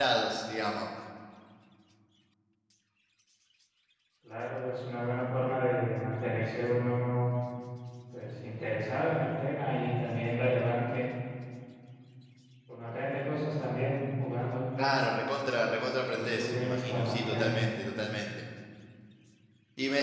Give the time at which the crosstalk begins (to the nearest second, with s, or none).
16 s